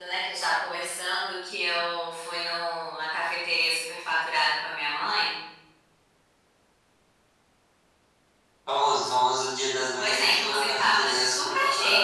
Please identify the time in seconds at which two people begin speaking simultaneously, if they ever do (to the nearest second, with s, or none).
10 s